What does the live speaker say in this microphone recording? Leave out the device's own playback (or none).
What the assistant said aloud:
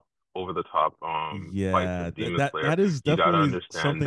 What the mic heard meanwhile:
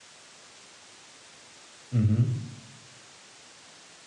Mm-hmm.